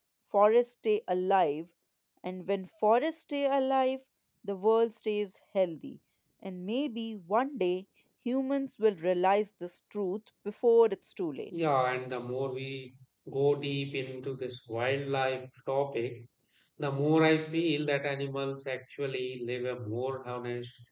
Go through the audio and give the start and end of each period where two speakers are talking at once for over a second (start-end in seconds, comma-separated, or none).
none